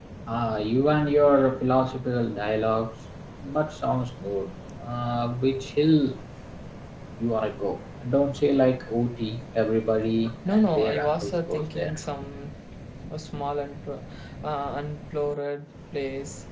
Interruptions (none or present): present